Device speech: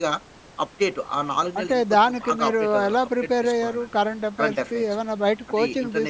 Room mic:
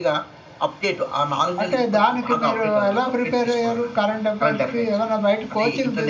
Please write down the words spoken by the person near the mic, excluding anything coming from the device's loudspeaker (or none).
none